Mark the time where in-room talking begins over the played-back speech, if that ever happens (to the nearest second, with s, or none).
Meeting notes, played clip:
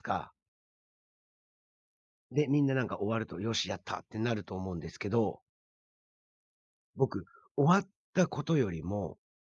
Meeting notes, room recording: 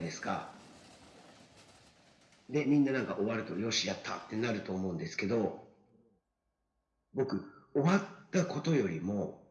none